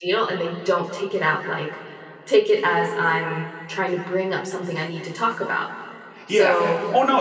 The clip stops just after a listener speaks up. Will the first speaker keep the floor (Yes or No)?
No